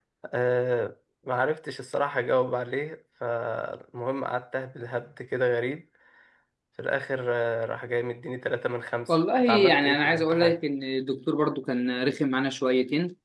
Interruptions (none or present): present